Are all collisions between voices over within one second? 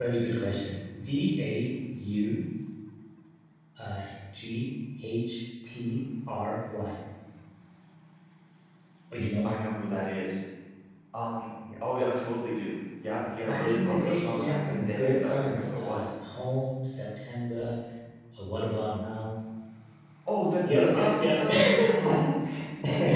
No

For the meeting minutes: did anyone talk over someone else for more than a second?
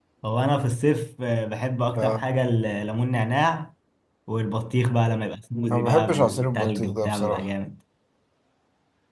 Yes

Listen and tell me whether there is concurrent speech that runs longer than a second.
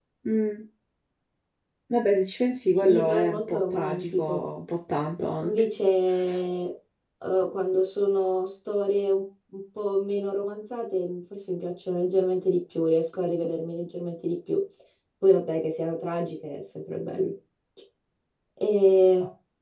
Yes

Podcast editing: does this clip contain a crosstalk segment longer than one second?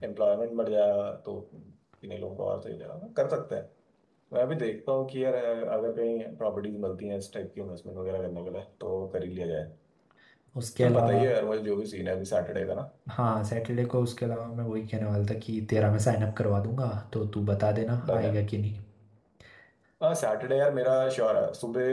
No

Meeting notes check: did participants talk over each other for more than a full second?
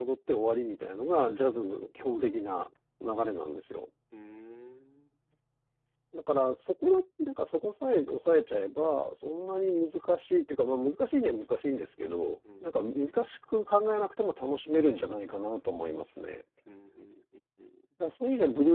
No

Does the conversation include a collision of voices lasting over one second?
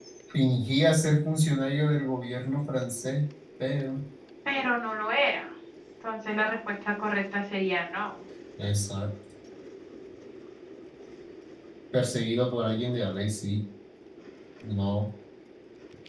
No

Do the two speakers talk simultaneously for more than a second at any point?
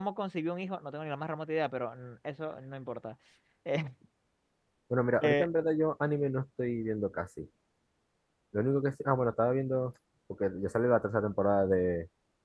No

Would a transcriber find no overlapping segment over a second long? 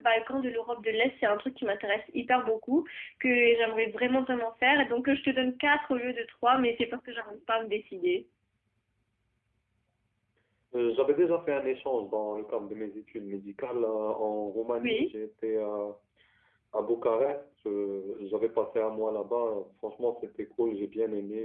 Yes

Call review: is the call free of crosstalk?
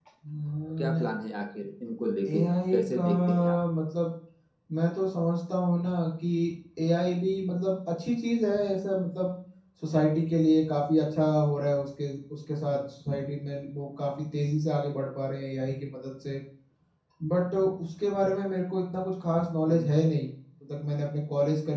No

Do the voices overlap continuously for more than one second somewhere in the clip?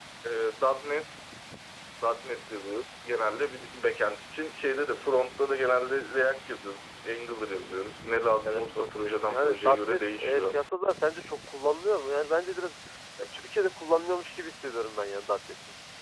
Yes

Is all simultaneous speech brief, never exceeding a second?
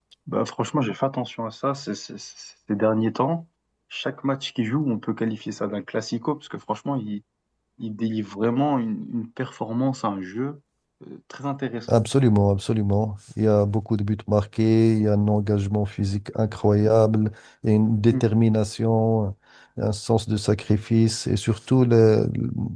Yes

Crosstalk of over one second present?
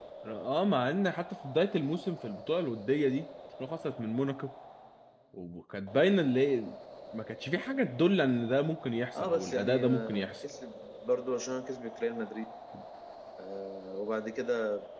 Yes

